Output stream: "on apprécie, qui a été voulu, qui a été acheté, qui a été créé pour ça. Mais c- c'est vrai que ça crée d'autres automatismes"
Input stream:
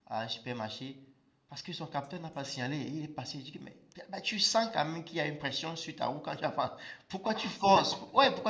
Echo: none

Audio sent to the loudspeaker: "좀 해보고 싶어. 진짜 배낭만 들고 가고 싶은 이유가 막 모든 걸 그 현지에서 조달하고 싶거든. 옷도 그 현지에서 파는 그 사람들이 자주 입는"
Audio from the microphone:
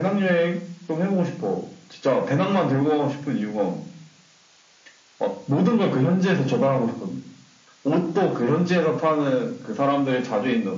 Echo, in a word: present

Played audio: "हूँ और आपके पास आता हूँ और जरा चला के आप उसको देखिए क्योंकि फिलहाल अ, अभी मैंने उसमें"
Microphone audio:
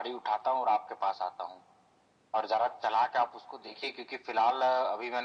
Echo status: present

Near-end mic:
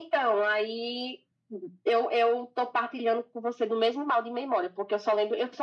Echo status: present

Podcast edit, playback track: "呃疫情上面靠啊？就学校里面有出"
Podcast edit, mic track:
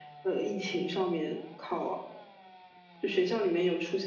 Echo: present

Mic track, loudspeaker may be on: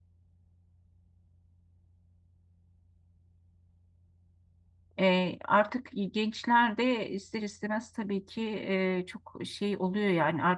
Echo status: none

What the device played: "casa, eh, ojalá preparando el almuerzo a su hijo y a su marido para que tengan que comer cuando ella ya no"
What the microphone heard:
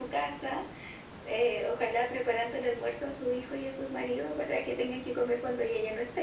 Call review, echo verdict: present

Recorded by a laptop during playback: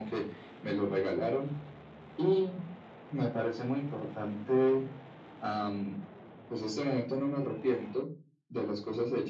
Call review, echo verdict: present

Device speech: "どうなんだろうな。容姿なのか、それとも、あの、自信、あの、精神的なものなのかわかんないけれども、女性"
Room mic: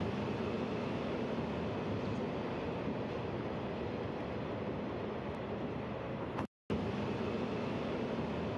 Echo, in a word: none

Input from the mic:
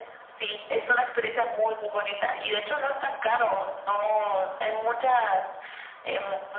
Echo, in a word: present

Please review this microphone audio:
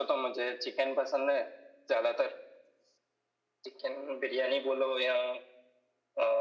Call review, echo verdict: present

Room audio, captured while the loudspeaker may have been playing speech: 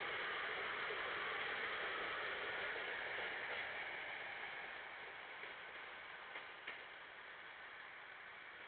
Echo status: none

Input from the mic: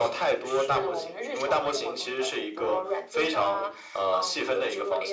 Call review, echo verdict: present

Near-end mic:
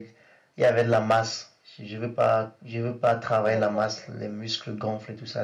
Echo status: present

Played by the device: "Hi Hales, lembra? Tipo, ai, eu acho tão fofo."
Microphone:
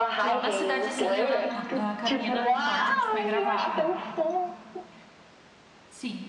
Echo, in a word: present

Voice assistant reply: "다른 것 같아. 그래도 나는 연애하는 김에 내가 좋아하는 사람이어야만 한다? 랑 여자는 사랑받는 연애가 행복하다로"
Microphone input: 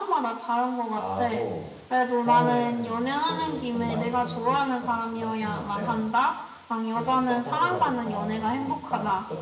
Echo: present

